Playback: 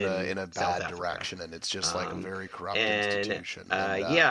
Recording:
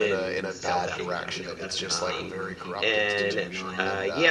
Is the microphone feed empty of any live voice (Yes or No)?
No